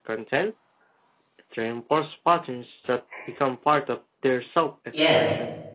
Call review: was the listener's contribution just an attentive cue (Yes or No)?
No